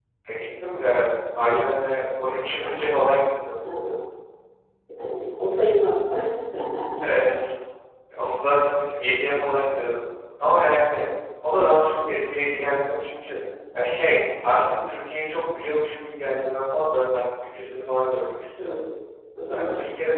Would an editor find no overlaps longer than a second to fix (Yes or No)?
Yes